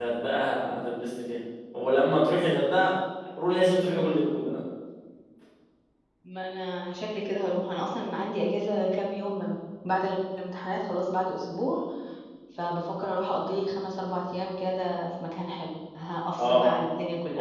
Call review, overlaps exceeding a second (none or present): none